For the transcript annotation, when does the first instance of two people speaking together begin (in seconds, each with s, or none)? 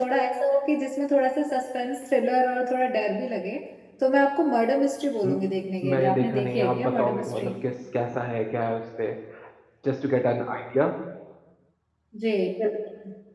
5.9 s